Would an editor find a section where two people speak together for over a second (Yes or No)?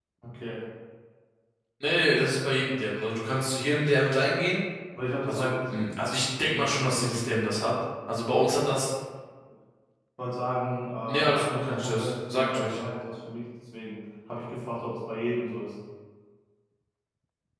Yes